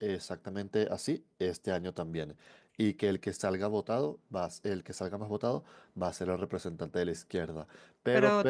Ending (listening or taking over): taking over